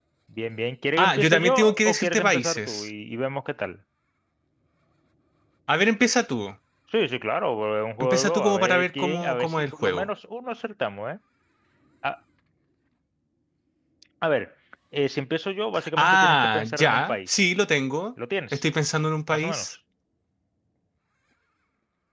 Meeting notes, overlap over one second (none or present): present